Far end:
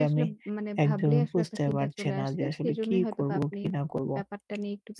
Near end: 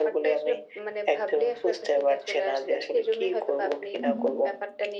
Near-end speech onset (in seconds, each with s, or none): 4.0 s